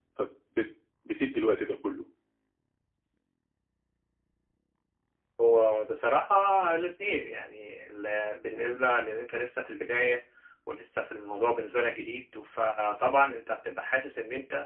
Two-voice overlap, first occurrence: none

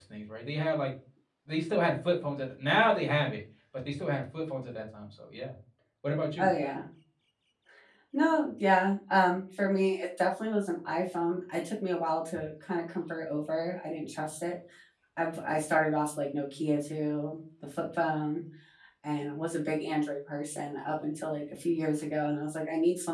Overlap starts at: none

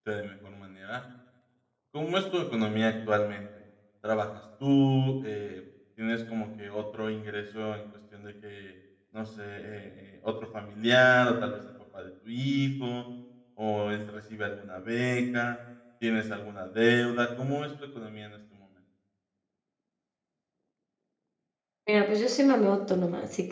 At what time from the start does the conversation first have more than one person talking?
none

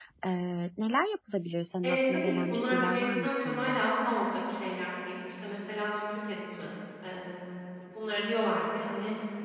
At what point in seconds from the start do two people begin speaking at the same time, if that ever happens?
1.8 s

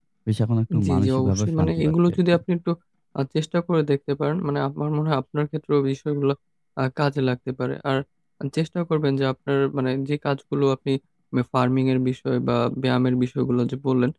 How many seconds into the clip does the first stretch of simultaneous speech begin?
0.8 s

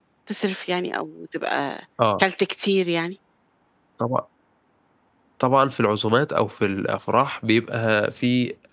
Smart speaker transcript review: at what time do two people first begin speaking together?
none

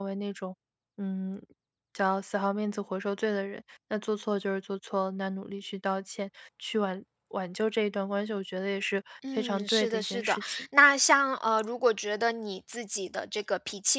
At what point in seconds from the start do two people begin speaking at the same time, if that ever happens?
9.2 s

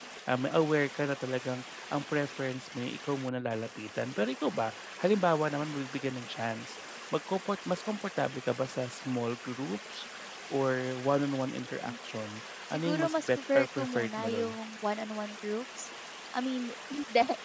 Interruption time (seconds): 12.7 s

